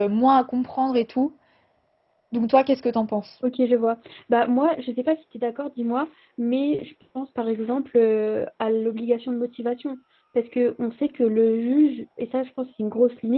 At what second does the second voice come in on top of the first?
none

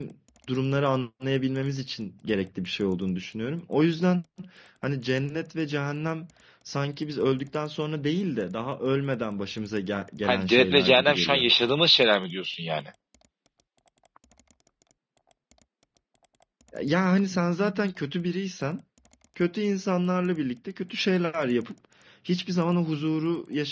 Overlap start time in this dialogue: 10.2 s

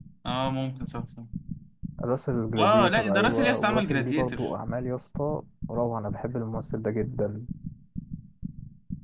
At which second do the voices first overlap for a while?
2.6 s

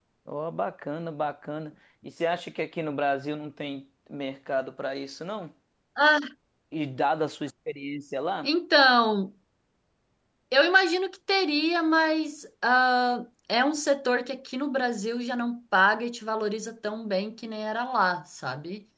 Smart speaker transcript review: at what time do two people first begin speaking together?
none

